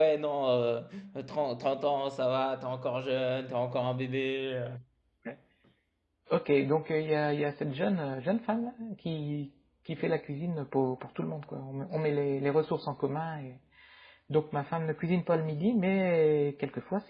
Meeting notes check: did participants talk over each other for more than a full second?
No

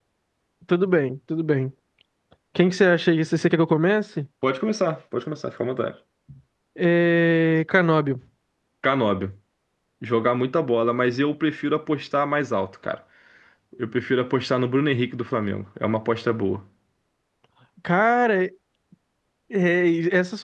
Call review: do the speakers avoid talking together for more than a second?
Yes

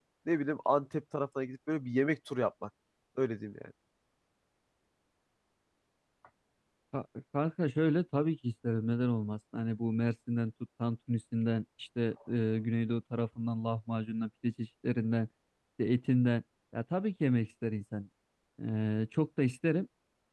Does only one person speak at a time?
Yes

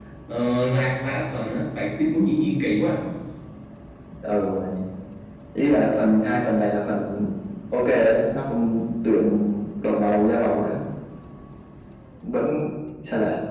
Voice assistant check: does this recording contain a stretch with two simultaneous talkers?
No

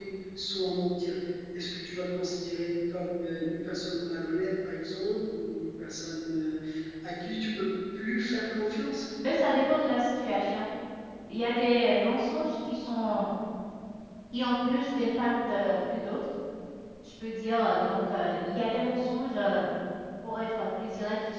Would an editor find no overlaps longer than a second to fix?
Yes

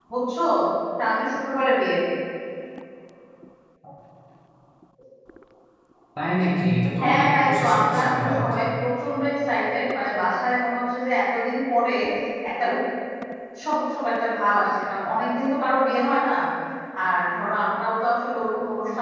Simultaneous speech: Yes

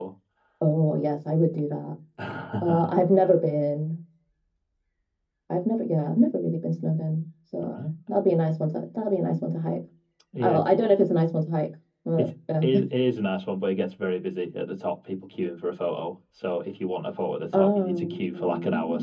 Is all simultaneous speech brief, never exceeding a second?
No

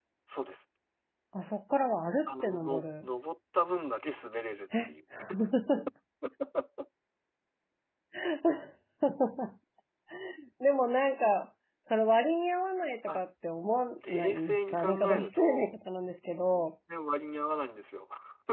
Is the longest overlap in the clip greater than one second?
Yes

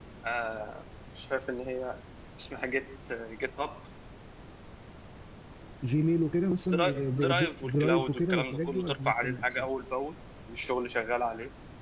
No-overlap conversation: No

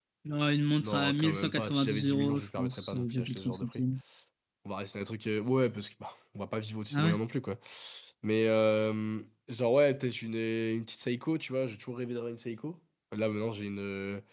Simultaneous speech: Yes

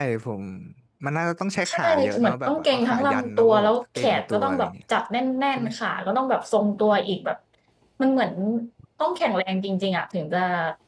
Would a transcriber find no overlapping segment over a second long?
No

